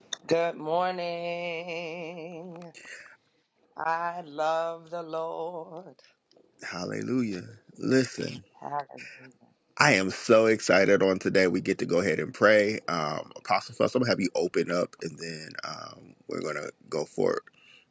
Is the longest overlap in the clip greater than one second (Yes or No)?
No